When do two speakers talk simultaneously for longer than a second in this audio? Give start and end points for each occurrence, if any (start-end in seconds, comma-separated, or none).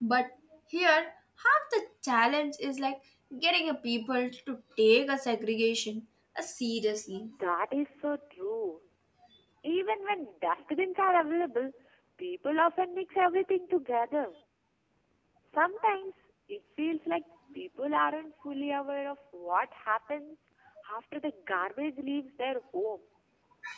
none